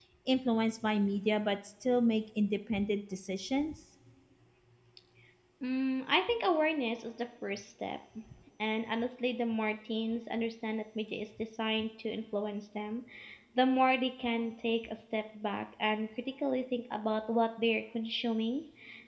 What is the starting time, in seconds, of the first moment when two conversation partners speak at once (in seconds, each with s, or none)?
none